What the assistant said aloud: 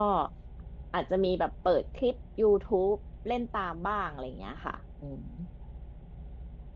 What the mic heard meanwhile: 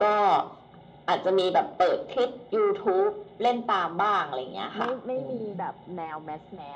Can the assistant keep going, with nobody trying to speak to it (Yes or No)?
No